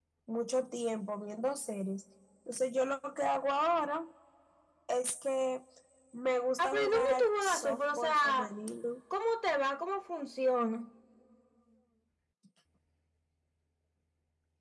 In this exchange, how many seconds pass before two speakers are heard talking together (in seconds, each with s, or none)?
6.6 s